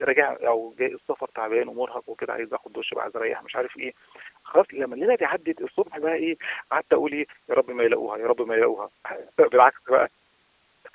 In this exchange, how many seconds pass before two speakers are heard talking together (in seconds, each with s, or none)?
none